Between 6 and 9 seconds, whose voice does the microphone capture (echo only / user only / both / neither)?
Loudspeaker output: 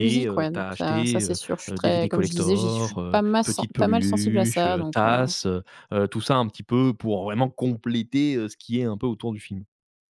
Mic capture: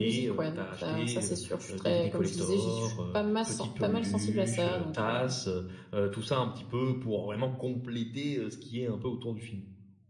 echo only